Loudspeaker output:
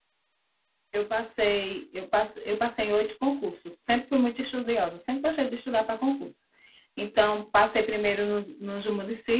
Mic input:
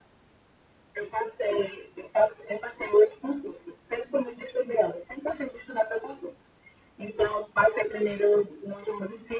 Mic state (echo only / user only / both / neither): echo only